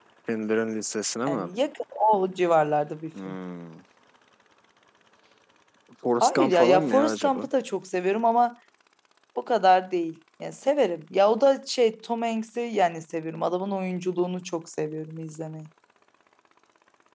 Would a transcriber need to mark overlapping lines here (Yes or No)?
Yes